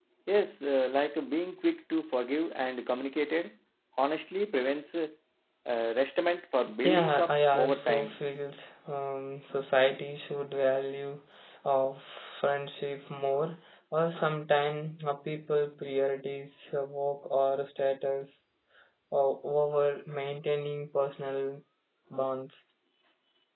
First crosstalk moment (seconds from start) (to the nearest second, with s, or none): 7 s